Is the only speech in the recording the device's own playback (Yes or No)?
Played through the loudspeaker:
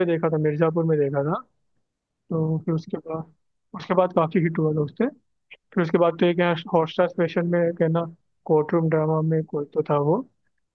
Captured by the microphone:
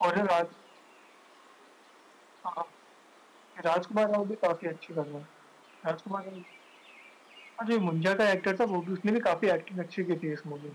No